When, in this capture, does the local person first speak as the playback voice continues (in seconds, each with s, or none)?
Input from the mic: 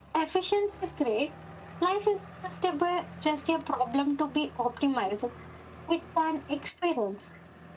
none